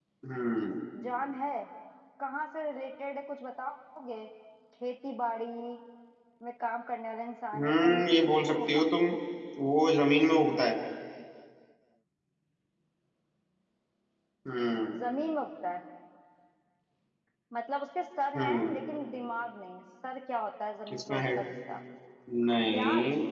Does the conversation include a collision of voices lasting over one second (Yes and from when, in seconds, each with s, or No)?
Yes, from 7.5 s